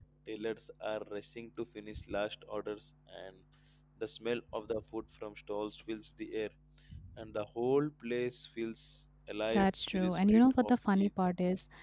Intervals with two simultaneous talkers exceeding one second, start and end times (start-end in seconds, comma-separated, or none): 9.5-11.1